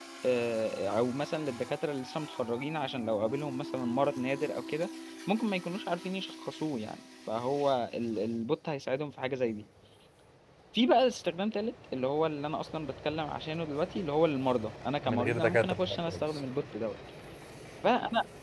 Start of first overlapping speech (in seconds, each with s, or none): 15.0 s